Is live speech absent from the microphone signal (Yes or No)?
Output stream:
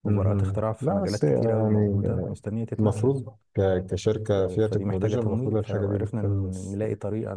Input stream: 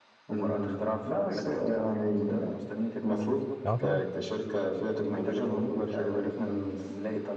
No